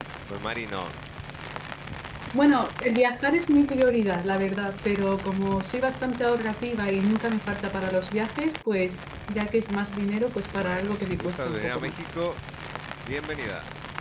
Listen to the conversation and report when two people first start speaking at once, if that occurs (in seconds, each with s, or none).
10.5 s